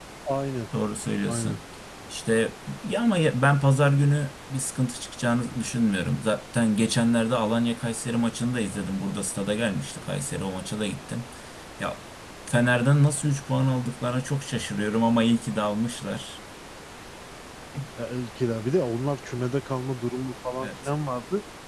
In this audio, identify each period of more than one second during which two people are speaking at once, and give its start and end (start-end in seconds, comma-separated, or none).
none